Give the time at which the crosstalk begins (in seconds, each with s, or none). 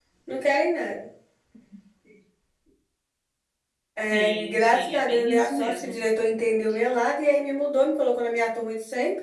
4.1 s